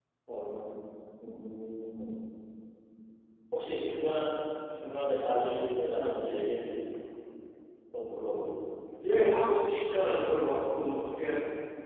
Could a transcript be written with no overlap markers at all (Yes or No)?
Yes